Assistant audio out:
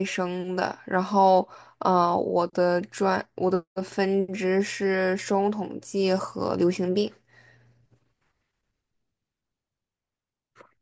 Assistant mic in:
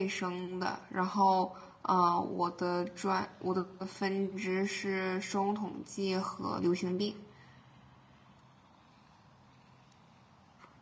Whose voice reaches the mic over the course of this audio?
echo only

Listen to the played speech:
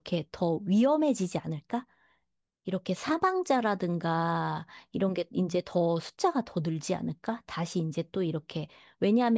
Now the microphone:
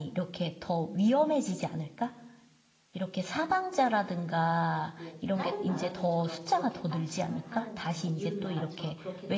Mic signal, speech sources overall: both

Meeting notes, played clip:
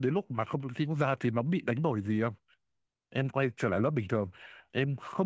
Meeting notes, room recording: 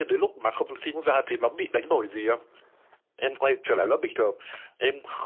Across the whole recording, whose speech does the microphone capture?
echo only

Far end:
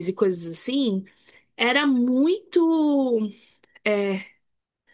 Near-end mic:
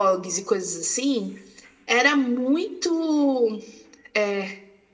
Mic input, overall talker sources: echo only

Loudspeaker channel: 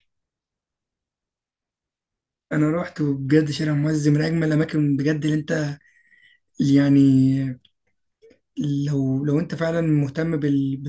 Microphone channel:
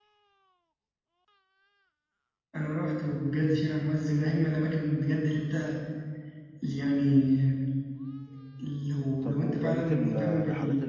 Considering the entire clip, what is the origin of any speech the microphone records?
both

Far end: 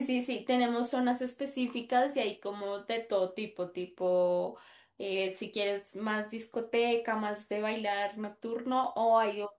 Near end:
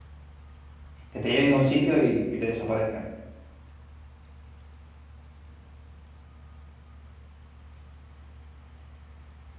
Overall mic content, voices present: user only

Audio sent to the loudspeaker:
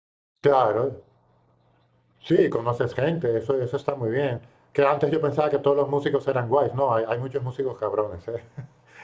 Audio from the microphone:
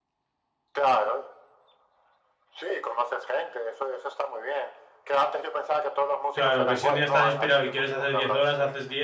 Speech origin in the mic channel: both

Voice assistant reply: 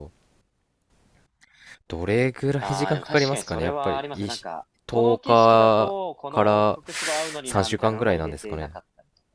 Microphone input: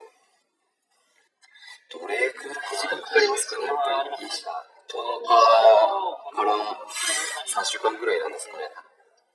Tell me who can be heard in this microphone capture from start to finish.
echo only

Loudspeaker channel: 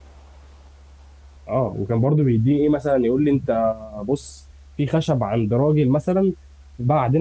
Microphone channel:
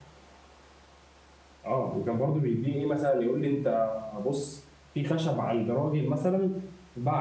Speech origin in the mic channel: echo only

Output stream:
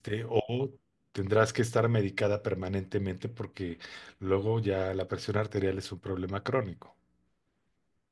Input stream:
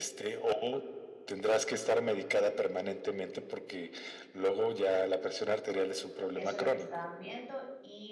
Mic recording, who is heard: both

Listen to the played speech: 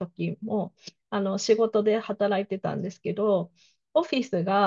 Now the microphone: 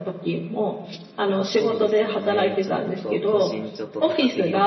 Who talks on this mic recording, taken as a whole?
both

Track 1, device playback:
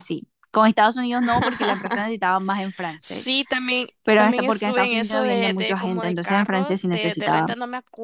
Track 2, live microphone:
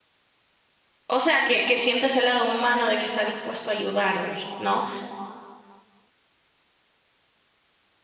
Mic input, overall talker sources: user only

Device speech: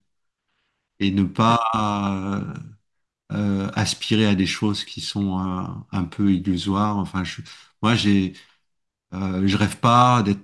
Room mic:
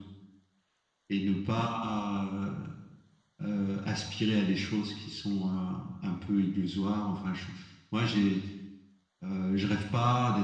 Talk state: echo only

